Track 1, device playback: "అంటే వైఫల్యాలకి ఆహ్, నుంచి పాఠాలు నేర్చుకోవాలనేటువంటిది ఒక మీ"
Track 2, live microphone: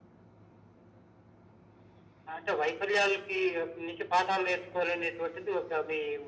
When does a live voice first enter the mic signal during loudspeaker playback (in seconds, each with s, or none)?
none